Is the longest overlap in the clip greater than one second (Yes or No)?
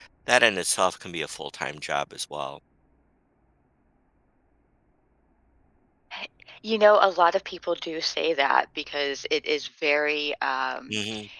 No